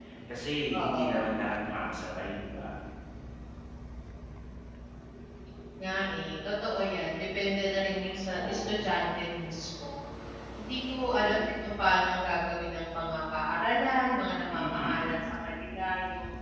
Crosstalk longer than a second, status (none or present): none